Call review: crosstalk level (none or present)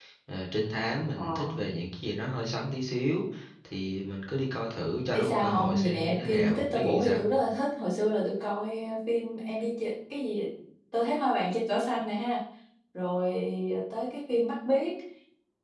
present